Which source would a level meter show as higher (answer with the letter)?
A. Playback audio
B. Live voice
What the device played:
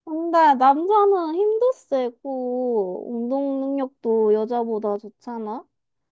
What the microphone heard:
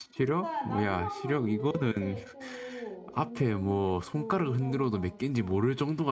B